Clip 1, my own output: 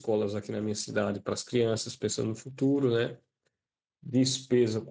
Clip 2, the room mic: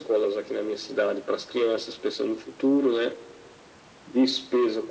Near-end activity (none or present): none